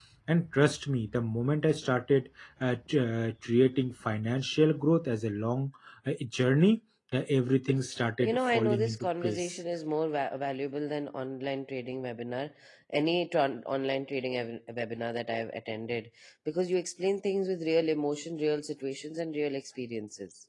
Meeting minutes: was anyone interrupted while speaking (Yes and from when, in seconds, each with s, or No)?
Yes, from 8.2 s